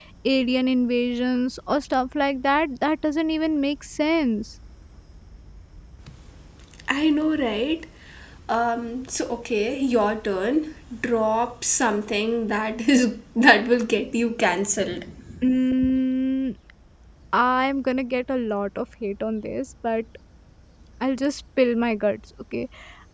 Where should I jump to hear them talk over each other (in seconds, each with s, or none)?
none